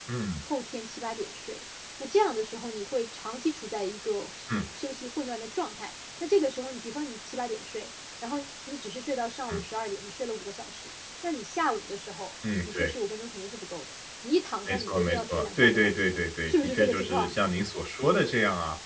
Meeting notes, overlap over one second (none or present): present